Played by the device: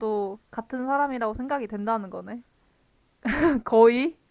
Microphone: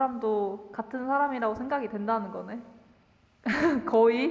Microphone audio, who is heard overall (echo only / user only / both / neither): echo only